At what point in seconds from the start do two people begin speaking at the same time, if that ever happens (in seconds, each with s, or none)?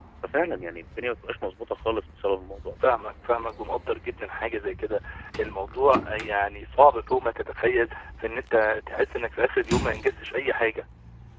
none